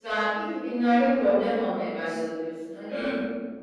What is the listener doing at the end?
taking over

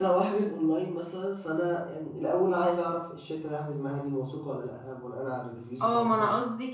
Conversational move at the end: taking over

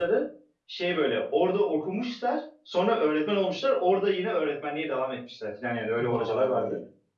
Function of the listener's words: taking over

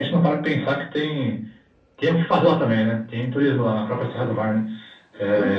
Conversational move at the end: listening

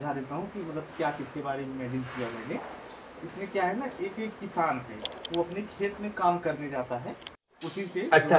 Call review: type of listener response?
taking over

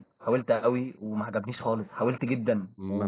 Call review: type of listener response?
taking over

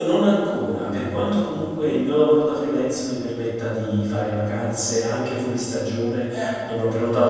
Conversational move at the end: listening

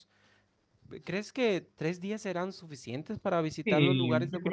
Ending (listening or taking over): taking over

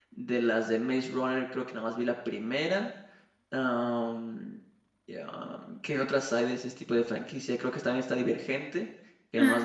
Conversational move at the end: listening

